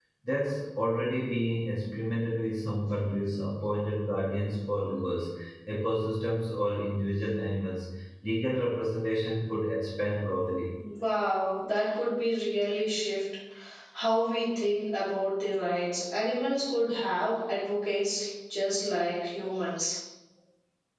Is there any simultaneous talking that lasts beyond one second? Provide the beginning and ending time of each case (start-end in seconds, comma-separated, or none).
none